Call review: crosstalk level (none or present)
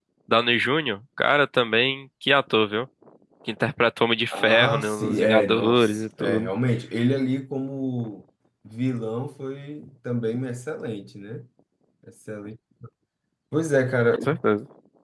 present